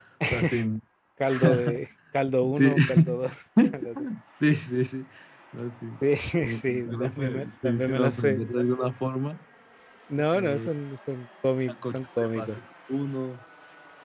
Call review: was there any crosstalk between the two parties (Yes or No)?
Yes